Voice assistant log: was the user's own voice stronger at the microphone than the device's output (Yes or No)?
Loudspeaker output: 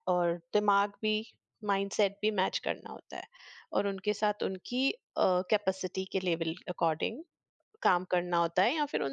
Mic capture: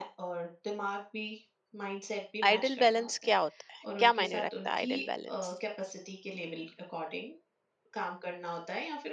Yes